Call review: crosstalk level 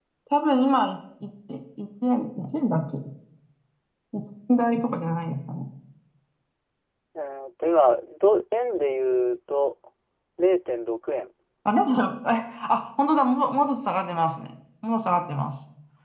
none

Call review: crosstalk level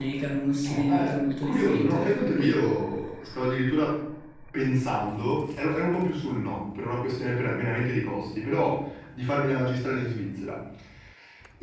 present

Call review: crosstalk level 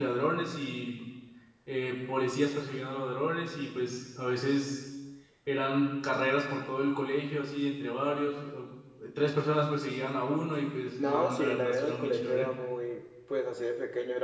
present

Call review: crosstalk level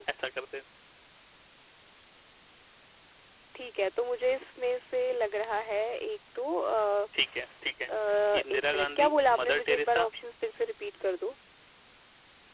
present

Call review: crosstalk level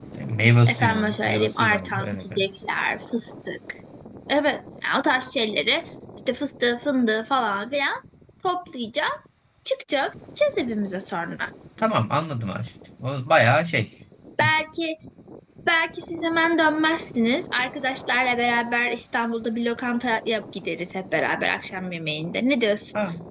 present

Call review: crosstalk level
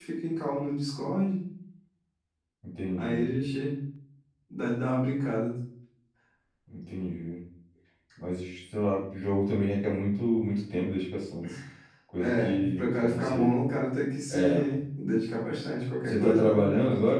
present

